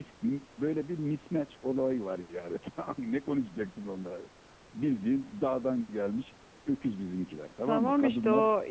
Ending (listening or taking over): taking over